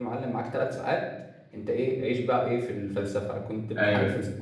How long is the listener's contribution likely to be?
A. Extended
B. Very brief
B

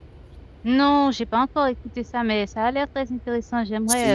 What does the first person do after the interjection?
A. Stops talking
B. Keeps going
A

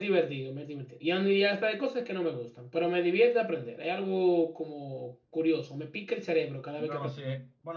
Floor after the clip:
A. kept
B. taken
B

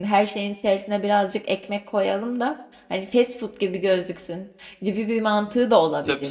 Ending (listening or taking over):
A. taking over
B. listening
A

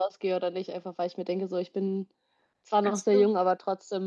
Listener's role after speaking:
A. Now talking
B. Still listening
B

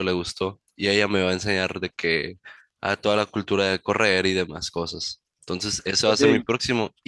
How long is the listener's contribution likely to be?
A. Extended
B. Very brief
B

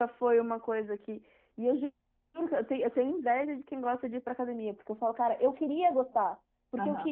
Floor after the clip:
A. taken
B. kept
B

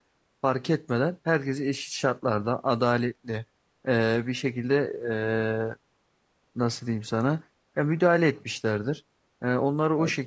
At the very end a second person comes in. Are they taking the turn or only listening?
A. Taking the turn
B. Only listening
B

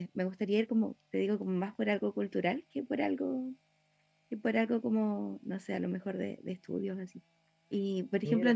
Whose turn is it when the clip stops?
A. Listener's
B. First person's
B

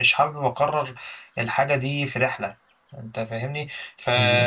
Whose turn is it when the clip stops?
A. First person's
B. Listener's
A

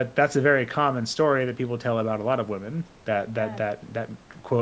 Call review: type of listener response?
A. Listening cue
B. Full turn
A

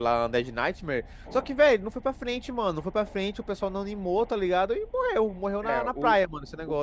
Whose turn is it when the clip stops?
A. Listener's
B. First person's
A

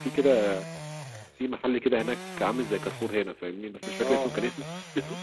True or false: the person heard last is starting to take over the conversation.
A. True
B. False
B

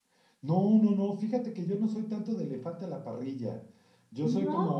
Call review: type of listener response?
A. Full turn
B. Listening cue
B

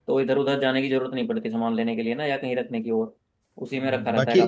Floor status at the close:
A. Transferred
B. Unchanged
A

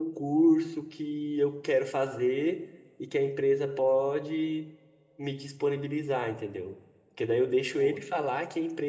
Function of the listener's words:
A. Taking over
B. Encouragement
B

